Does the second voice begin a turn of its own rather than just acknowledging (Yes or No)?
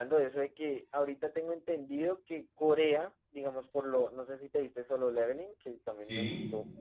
No